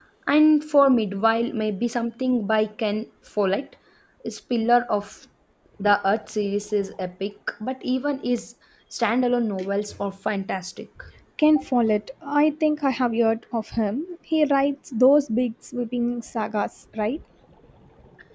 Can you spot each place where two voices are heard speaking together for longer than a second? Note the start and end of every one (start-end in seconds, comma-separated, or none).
none